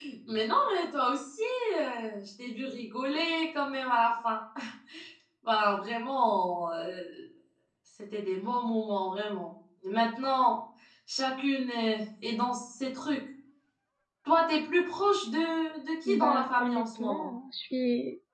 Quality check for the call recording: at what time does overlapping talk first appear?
16 s

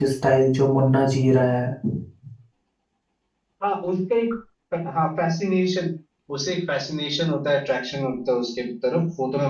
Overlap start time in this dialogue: none

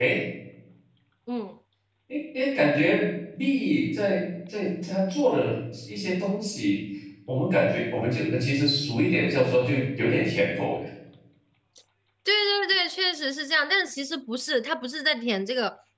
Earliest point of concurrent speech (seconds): none

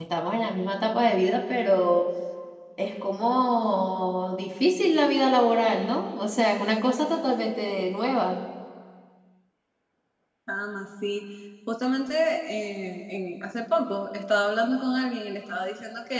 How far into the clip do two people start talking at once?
none

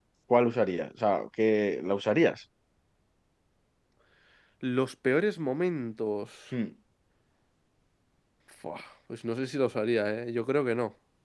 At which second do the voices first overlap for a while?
none

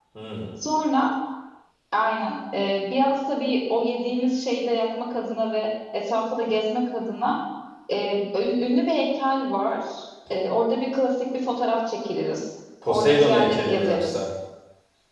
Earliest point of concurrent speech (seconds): 13 s

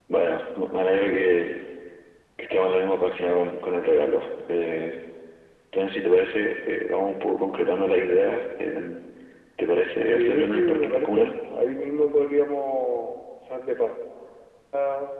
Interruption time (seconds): 10 s

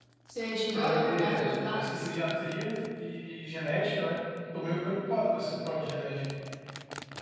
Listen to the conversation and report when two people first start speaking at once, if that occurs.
1 s

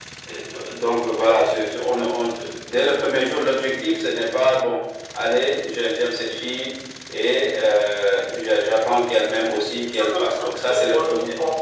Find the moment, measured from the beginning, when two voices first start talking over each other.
10 s

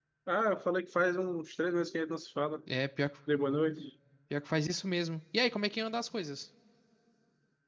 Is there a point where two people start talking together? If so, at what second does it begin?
none

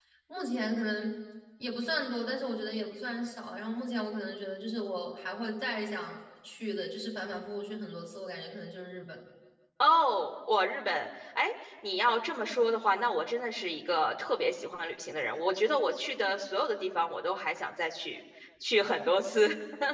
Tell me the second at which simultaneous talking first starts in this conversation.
none

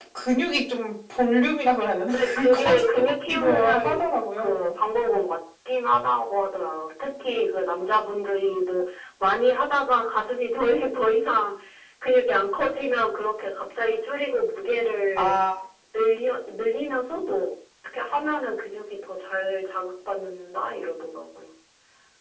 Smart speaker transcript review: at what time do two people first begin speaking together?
2 s

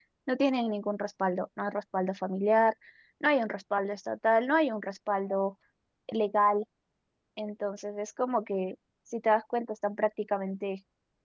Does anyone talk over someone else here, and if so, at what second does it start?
none

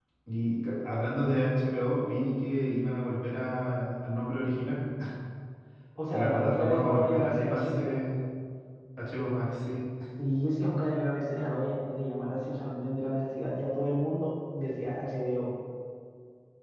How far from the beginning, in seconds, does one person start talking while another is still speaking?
6 s

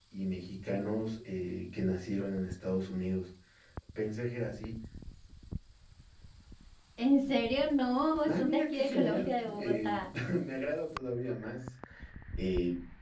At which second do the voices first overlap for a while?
8 s

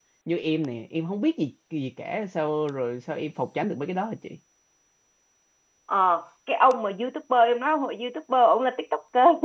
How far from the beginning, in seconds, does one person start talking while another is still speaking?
none

